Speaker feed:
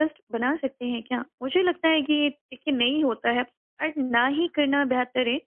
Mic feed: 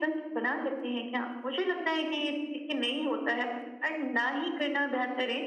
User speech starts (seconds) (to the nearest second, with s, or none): none